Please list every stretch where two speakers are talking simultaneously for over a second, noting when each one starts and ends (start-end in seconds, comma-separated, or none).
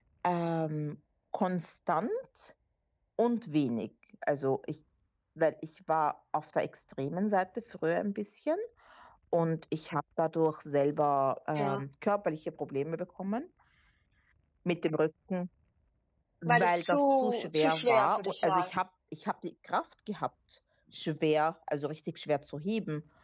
16.4-18.7